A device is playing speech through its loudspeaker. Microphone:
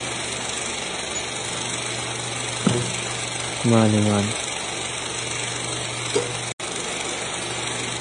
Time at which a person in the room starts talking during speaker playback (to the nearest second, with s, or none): 4 s